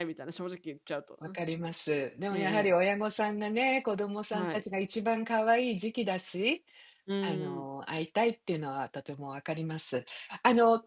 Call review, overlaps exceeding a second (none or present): none